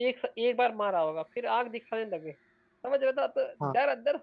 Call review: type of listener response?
listening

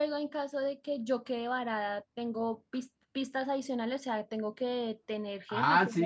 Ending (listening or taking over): taking over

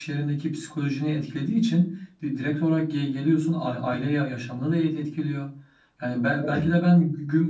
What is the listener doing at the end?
listening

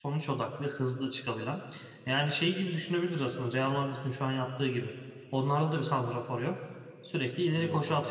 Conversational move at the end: listening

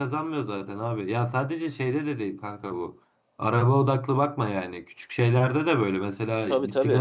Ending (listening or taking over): listening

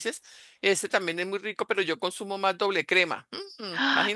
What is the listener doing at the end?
taking over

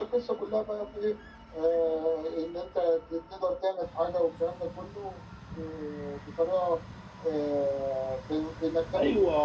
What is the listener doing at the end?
taking over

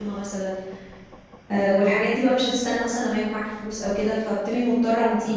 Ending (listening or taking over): taking over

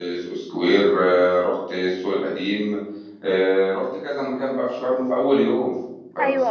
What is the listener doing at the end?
listening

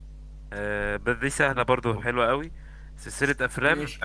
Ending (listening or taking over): listening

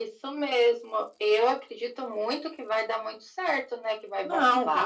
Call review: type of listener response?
taking over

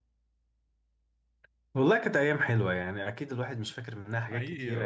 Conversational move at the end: listening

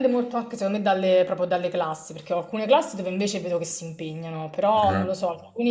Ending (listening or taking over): listening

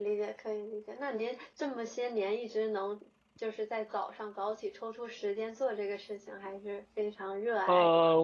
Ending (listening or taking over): taking over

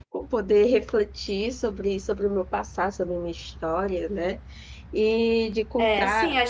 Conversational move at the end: taking over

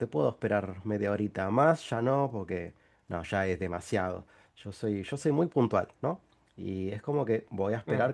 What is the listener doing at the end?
listening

